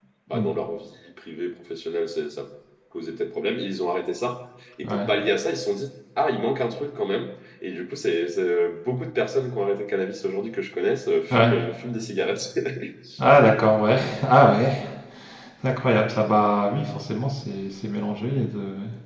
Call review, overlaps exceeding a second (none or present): none